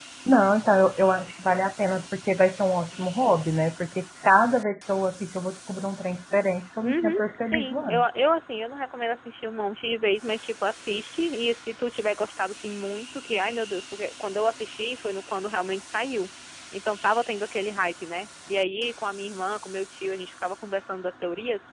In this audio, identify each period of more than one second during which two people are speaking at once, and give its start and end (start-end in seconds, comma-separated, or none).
6.8-8.0